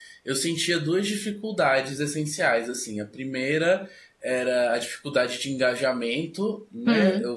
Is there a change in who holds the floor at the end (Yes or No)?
No